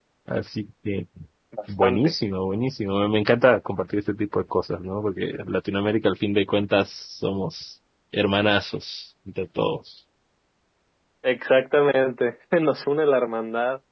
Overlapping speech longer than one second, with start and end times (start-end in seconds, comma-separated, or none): none